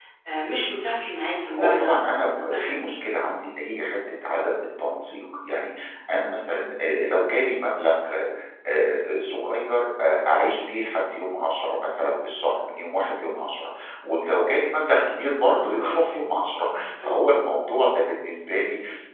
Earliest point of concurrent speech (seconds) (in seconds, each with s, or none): 1.4 s